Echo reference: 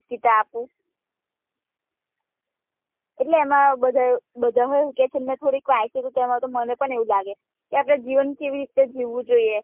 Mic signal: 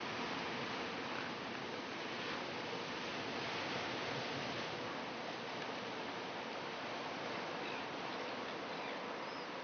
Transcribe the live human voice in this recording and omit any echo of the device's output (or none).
none